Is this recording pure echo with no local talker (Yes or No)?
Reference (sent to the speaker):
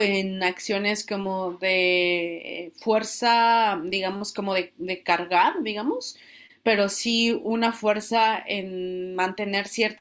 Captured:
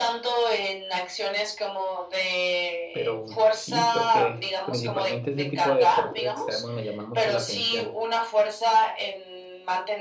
No